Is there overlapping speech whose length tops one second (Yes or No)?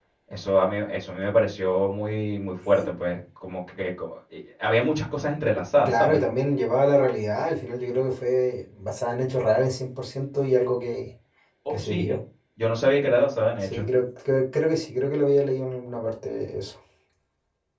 No